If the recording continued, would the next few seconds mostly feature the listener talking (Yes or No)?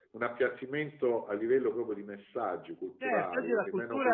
Yes